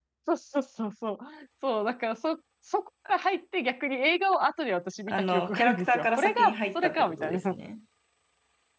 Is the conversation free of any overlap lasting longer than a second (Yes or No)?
No